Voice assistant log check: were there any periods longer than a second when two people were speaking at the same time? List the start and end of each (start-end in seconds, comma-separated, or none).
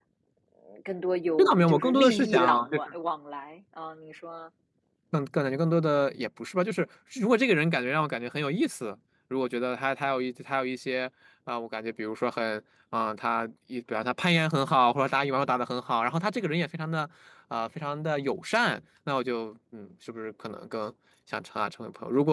1.4-2.7